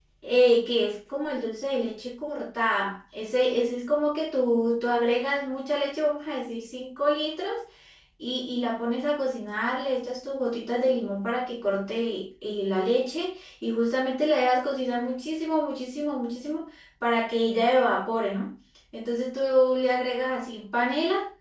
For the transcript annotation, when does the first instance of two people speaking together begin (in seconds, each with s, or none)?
none